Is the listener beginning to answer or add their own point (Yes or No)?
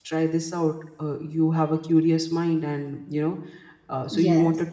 No